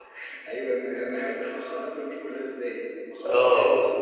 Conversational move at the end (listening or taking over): taking over